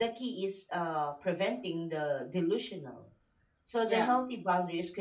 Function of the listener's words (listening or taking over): listening